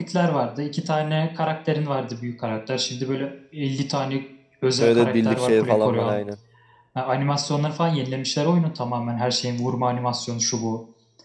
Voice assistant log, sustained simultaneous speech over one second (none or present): present